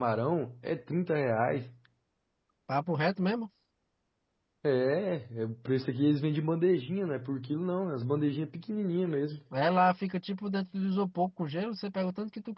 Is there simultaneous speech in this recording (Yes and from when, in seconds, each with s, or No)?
No